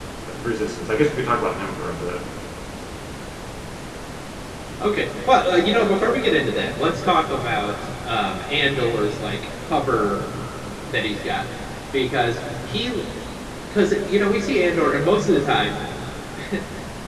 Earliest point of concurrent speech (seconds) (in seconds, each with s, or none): none